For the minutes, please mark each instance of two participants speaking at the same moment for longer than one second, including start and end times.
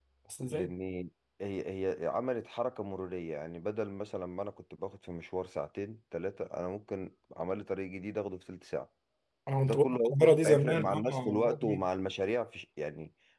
9.6-11.8

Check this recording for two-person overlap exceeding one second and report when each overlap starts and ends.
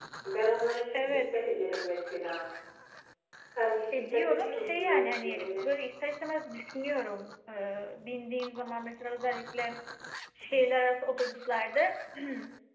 4.0-5.7

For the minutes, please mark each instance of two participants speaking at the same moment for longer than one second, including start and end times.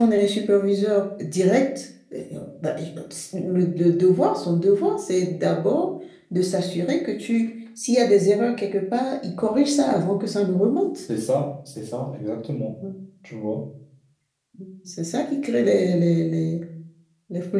none

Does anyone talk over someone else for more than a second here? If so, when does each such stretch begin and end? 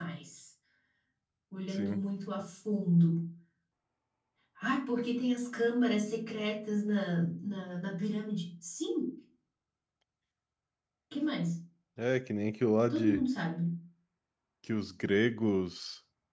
none

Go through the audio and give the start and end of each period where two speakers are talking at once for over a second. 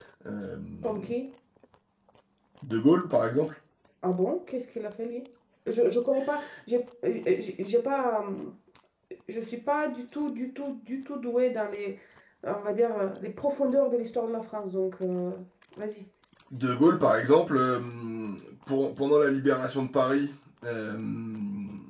none

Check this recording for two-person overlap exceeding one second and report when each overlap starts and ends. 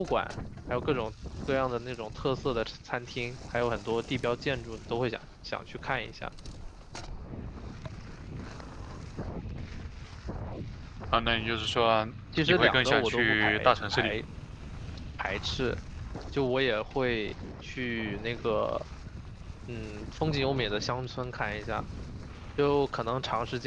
12.5-14.1

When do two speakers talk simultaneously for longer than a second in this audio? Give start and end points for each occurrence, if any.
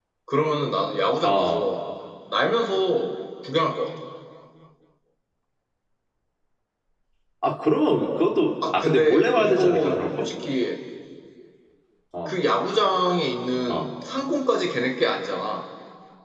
8.7-10.3

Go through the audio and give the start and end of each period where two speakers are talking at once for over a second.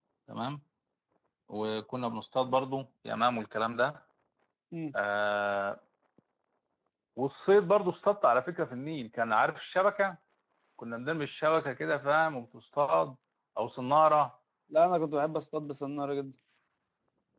none

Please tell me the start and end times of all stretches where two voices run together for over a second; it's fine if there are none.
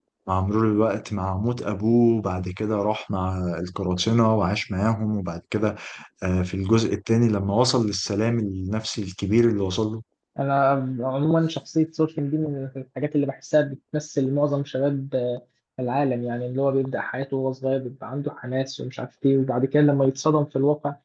none

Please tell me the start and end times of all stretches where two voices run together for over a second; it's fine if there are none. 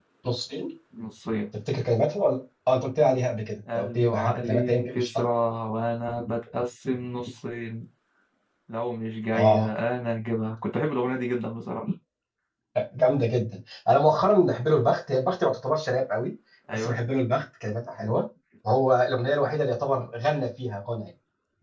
3.8-5.2

